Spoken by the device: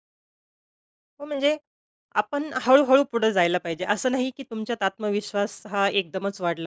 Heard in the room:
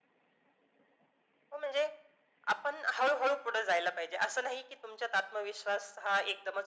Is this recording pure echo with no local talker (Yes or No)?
Yes